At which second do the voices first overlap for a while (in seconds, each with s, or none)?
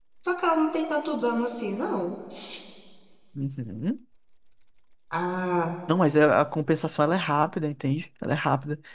none